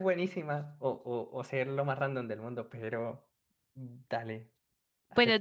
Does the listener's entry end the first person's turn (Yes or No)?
Yes